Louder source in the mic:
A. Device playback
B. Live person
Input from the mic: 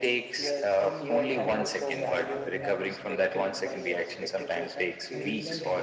A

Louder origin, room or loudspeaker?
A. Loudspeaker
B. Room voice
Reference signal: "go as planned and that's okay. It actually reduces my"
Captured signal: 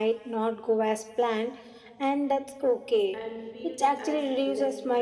A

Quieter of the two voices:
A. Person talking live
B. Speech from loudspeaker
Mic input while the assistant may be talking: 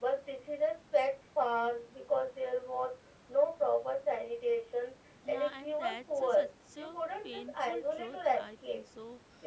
A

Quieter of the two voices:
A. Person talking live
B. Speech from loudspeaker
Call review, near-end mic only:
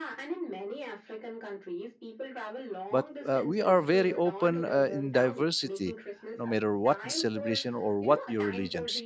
B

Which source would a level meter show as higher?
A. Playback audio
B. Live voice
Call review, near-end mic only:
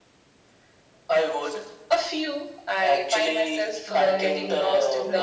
A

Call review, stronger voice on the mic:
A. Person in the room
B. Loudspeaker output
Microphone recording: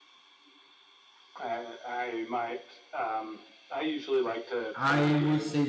A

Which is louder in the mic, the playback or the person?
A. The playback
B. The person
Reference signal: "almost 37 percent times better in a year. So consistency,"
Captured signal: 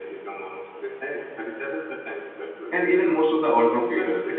B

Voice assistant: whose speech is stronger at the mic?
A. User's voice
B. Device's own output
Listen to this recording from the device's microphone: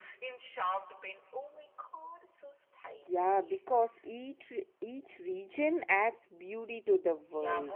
A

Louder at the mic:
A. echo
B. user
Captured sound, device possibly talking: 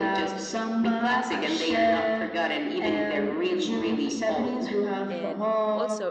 A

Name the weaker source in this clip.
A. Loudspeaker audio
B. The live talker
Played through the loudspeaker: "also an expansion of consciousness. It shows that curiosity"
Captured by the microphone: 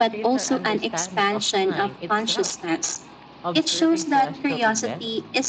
B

